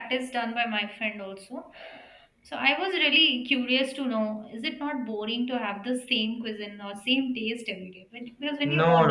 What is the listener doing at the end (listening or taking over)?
taking over